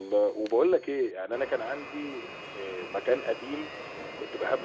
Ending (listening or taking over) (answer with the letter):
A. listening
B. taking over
A